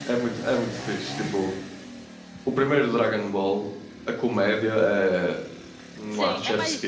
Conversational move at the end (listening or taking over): taking over